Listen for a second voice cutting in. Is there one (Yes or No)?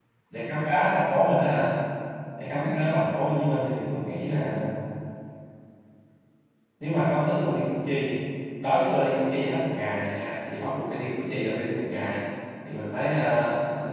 No